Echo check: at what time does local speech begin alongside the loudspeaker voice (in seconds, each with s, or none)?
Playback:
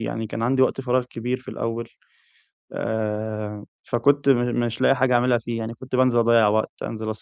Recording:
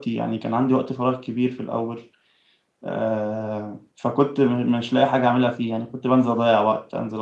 none